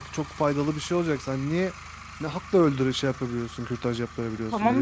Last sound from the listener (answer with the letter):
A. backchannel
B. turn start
B